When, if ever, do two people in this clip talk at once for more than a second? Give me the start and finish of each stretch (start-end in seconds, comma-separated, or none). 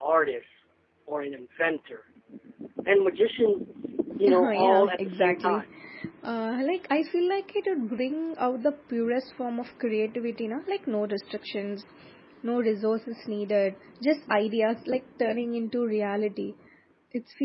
4.3-5.6